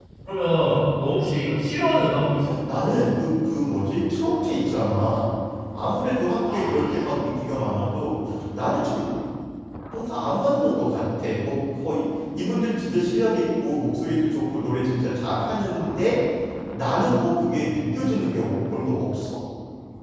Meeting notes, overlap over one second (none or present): none